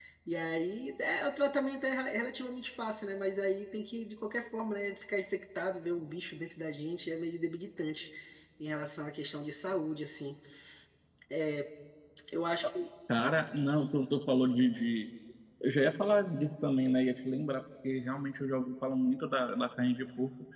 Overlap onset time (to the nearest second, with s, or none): none